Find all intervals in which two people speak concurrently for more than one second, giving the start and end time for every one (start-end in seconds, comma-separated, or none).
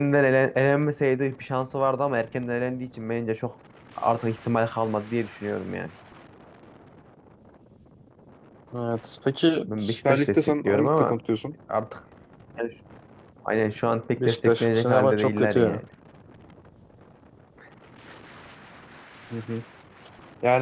9.7-11.2, 14.2-15.8